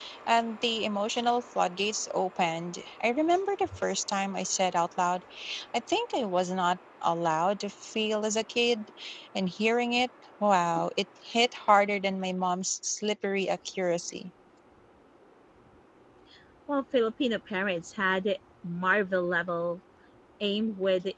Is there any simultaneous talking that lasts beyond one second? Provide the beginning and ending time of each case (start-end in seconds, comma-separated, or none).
none